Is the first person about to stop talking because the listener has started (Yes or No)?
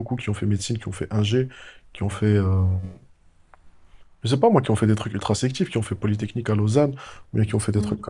No